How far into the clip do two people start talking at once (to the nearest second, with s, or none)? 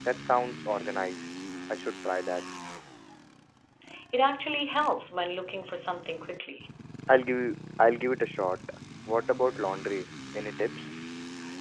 none